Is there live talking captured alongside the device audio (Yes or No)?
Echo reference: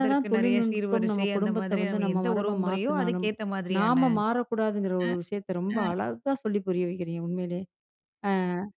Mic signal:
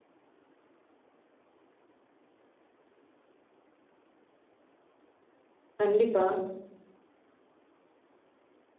Yes